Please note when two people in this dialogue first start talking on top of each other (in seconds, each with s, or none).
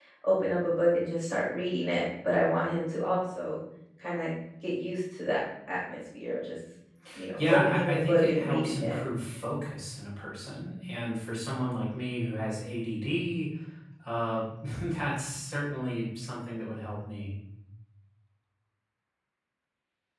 7.4 s